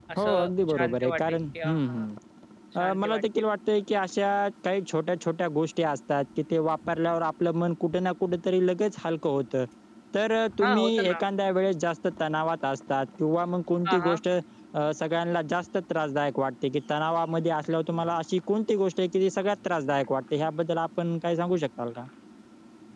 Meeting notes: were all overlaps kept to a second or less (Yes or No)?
No